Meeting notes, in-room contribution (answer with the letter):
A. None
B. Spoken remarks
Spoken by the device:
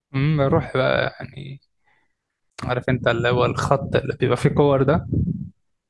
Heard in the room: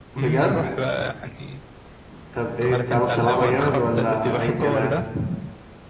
B